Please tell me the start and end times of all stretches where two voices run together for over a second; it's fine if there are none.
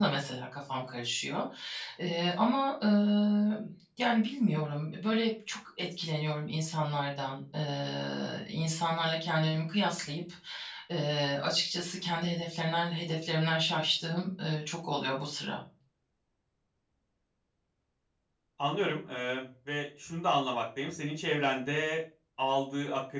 none

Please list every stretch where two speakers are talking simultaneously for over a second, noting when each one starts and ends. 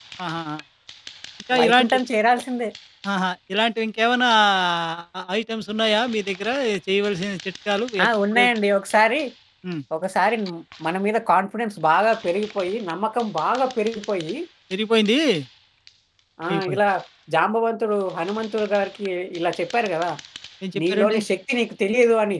none

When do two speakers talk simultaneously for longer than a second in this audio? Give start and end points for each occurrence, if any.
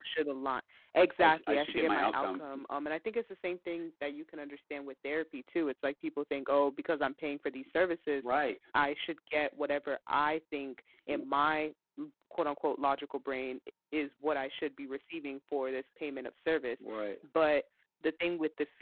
1.2-2.4

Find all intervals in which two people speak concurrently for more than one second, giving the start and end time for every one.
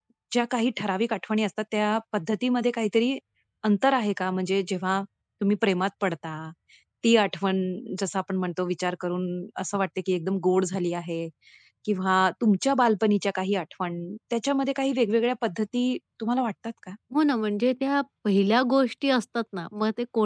none

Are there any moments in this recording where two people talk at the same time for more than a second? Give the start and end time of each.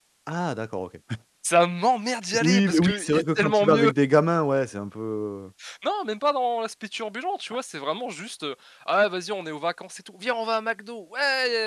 2.4-3.9

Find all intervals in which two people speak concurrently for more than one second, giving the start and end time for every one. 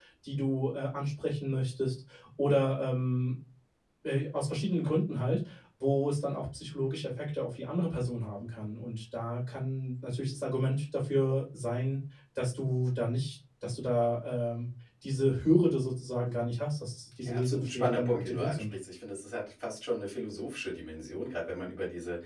17.2-18.7

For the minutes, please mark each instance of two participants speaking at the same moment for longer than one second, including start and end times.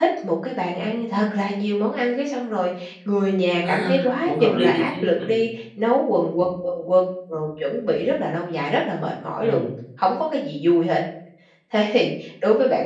3.6-5.2

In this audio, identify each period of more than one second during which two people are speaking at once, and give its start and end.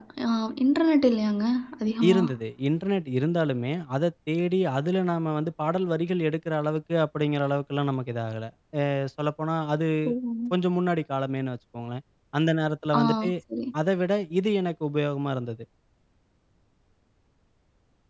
none

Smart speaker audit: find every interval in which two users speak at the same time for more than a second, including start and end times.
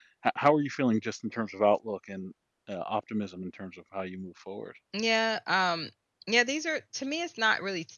none

